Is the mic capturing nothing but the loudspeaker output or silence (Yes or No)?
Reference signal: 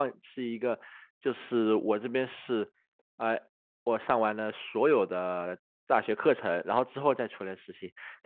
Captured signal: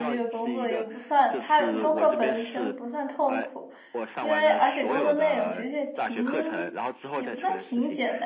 No